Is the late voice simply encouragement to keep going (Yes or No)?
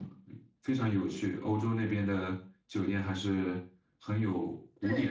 No